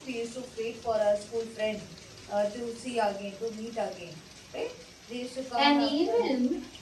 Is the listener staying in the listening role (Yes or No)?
No